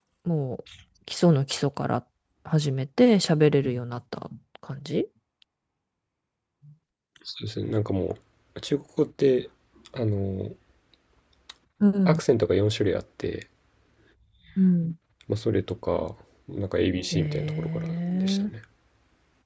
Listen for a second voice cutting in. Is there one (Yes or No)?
Yes